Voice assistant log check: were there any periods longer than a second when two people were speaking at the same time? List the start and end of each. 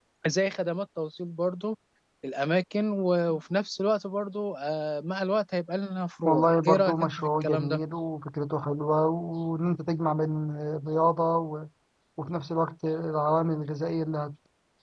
6.2-7.8

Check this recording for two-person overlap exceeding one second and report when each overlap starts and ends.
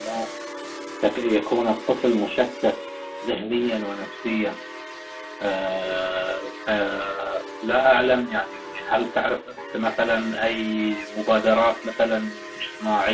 none

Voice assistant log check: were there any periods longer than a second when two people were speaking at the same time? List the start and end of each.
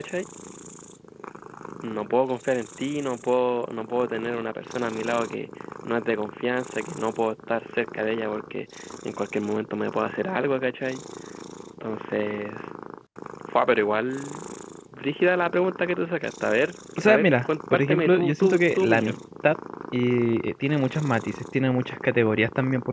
17.0-19.1

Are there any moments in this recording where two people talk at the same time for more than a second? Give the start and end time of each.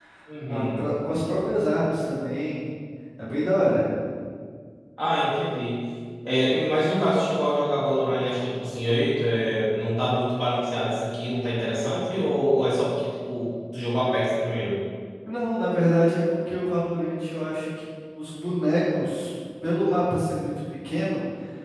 none

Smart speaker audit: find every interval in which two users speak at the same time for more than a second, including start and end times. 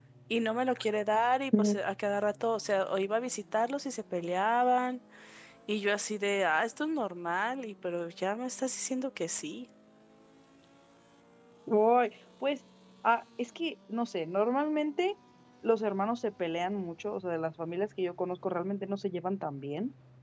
none

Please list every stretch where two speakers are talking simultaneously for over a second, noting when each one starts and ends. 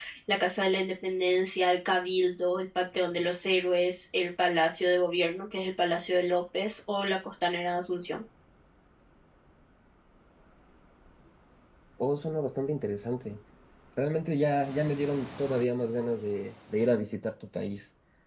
none

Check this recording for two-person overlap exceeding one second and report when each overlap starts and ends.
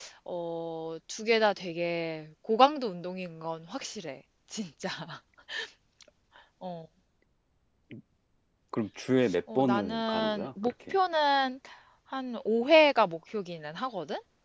9.6-10.9

